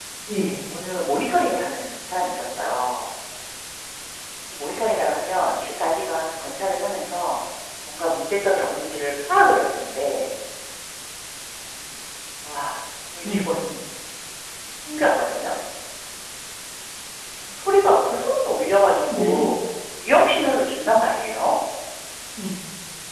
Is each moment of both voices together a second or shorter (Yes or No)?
Yes